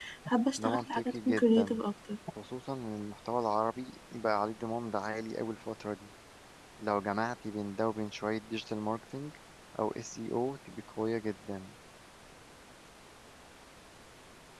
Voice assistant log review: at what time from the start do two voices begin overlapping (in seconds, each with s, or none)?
0.6 s